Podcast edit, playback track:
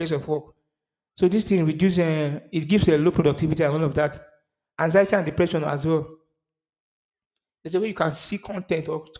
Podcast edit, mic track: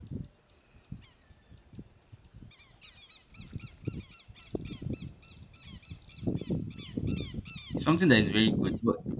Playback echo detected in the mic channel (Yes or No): No